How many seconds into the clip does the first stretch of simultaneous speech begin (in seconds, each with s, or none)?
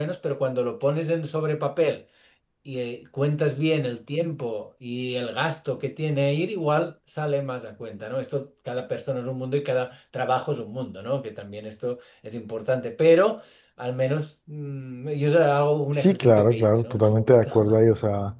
15.9 s